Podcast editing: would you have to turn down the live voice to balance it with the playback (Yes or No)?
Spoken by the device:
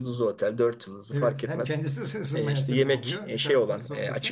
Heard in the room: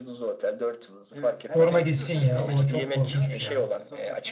Yes